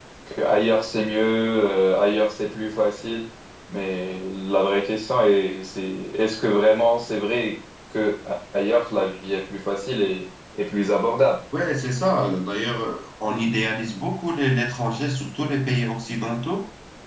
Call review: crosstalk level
none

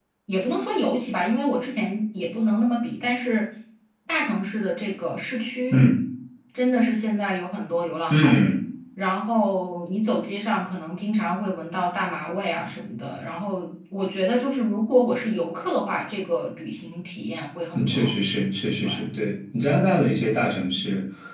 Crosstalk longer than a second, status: none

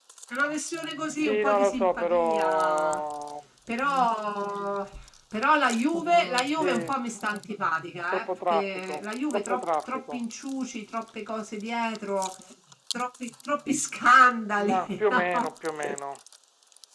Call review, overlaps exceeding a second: present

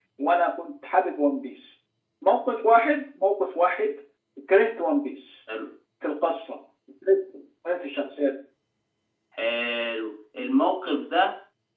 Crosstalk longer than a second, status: none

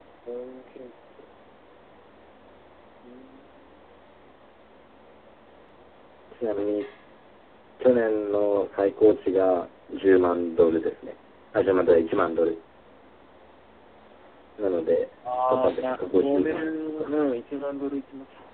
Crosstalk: present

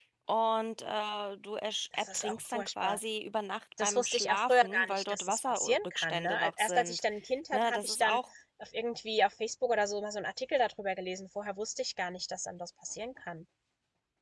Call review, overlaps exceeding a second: present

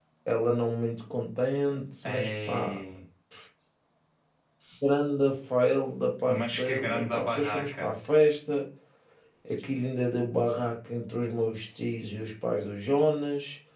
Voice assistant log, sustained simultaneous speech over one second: present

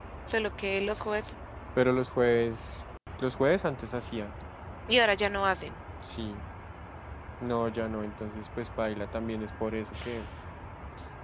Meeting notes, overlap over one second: none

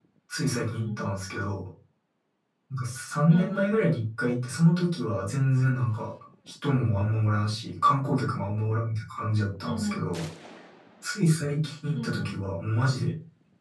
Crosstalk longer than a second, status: none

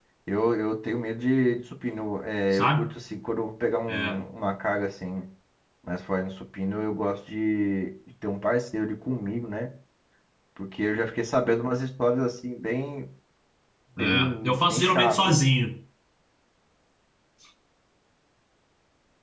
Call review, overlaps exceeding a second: present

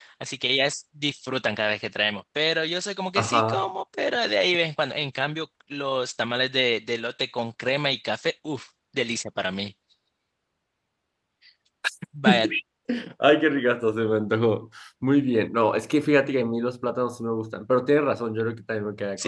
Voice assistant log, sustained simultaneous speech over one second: none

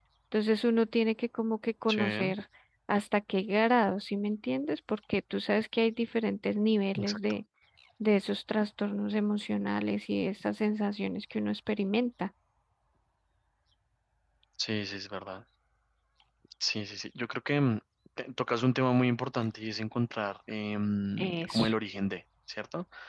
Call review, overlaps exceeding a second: none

